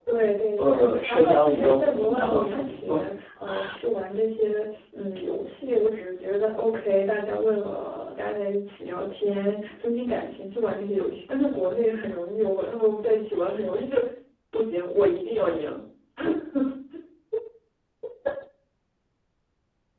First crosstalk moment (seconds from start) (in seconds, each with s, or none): 0.6 s